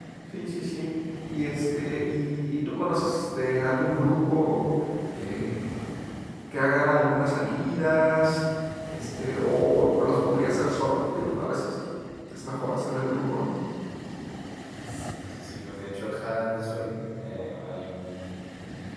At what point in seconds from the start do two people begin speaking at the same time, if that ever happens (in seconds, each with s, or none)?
none